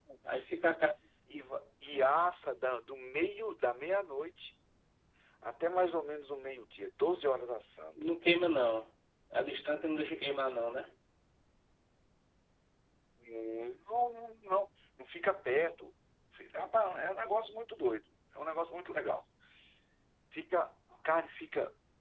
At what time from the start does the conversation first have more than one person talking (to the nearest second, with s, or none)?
none